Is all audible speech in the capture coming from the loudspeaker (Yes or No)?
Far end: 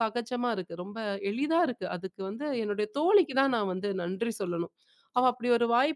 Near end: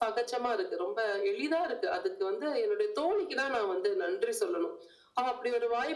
Yes